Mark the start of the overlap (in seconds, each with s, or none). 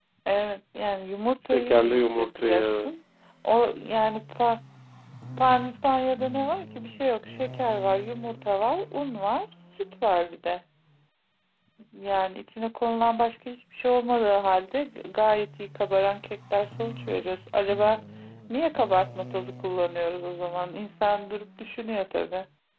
1.5 s